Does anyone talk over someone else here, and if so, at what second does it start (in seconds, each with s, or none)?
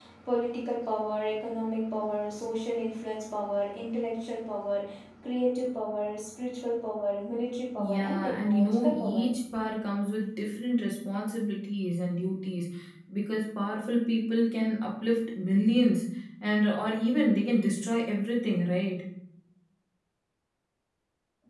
7.8 s